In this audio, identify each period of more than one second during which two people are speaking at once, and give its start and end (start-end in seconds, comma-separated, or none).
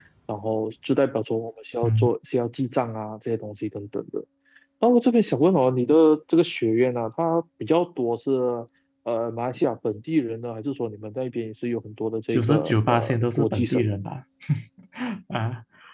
12.3-13.8